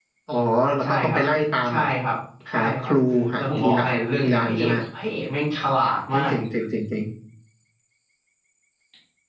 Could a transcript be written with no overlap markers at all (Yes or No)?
No